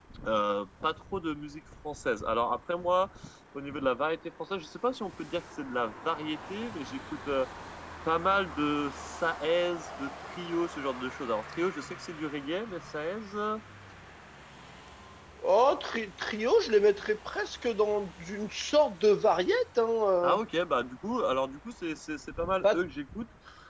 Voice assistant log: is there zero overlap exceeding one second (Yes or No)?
Yes